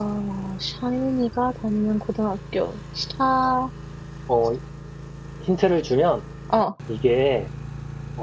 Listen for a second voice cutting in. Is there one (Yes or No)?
No